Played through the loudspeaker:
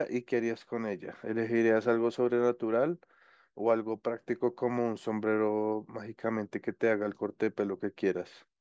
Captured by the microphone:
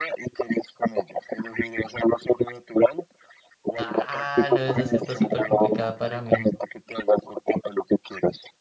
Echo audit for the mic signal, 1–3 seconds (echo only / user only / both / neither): echo only